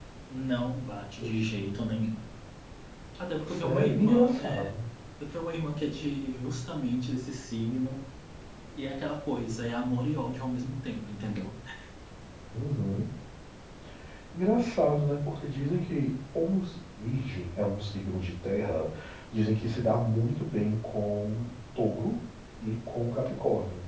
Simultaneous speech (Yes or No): Yes